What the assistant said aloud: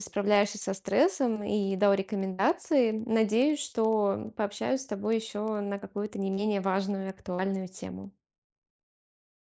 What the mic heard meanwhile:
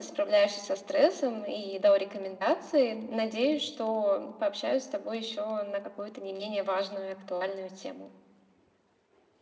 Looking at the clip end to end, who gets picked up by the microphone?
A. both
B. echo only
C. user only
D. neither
B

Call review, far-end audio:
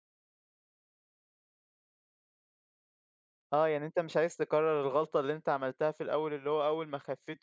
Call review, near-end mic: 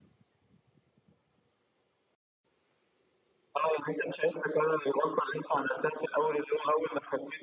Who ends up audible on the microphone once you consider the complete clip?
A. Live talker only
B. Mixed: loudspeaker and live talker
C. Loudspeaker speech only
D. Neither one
C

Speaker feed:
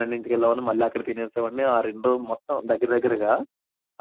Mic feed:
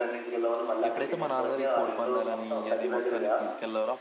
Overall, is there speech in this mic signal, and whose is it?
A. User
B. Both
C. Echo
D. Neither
B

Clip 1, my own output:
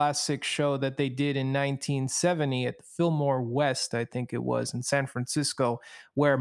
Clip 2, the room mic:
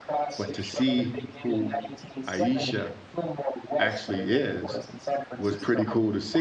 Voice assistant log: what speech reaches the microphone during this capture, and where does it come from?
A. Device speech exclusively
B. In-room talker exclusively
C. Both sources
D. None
C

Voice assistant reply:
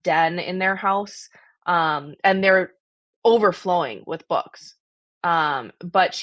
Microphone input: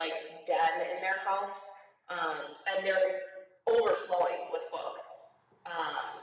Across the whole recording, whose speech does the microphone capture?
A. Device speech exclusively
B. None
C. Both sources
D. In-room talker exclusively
A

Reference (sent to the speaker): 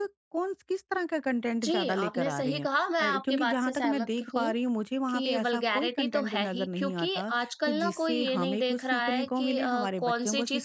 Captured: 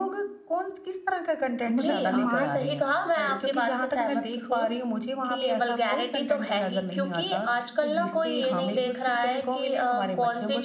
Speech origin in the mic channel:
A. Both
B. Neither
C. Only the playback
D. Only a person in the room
A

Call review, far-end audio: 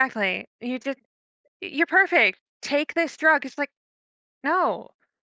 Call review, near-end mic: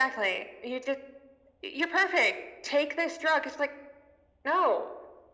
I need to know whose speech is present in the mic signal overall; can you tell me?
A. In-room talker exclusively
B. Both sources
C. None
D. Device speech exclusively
D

